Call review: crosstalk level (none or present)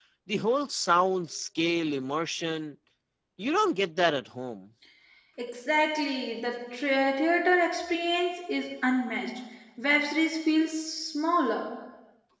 none